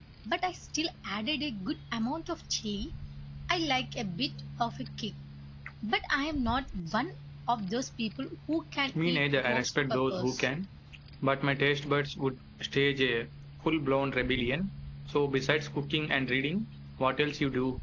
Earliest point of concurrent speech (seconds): 9 s

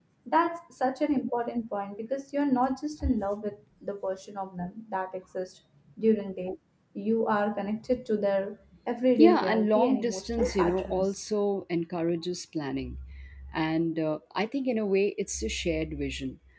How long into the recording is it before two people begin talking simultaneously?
9 s

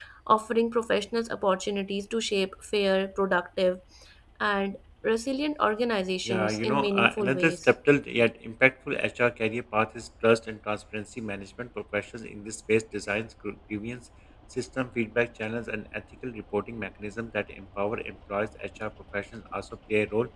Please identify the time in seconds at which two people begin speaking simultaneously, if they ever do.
6 s

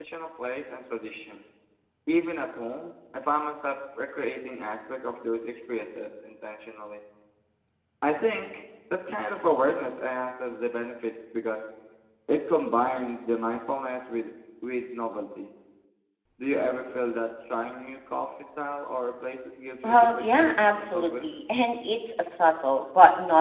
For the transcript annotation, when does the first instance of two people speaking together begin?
20 s

